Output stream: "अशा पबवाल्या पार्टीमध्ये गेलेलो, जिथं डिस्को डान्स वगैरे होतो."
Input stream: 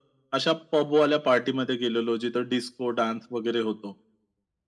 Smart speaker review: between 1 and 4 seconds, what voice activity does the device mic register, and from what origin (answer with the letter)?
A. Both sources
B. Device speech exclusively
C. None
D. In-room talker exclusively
B